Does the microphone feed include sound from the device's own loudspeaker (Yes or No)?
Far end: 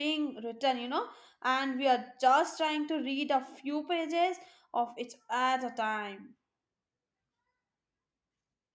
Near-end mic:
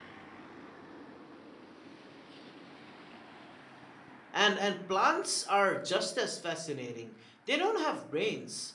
No